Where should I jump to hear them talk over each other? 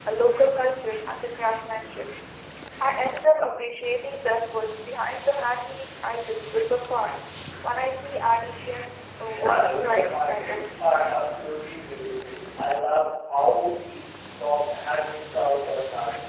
9.4 s

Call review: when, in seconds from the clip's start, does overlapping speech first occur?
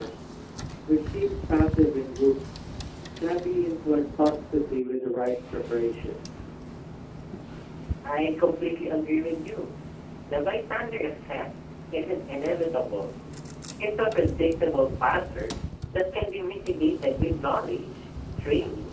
none

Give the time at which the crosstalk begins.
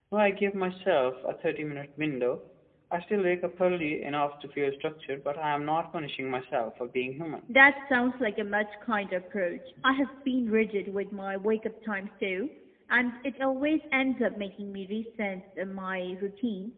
none

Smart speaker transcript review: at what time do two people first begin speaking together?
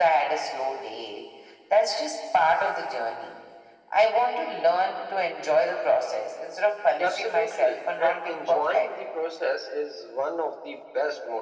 7.0 s

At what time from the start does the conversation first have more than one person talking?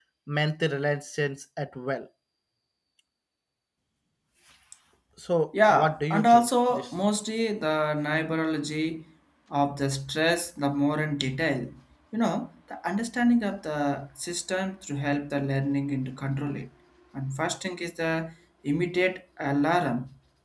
5.7 s

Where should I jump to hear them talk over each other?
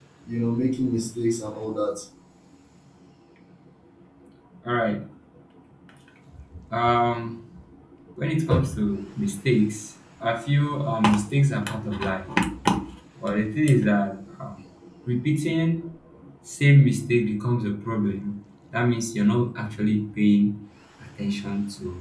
none

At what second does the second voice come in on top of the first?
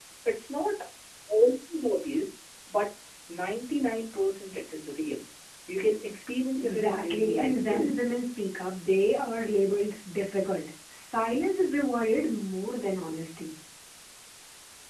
6.6 s

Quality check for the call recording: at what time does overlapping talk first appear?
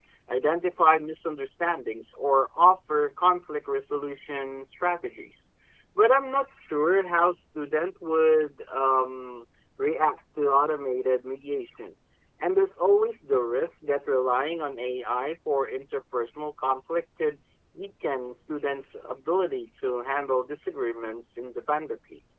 none

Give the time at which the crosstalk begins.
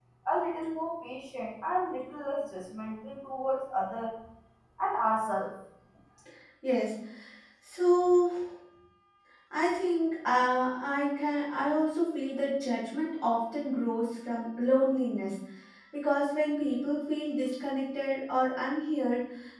none

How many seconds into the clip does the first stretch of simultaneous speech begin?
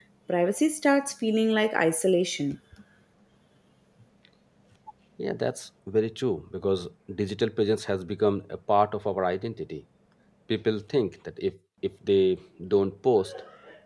none

